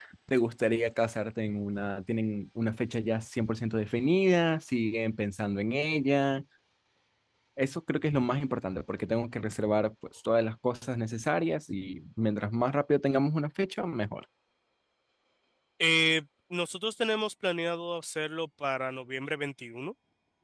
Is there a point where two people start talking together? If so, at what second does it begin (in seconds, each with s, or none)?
none